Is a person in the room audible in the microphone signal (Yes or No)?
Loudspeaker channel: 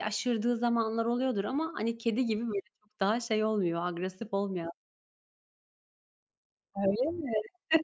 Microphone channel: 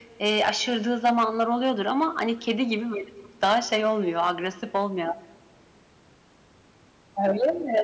No